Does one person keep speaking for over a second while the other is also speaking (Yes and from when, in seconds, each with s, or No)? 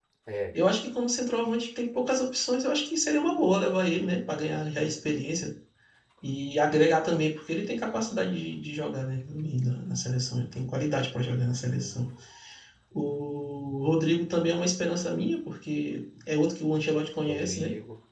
No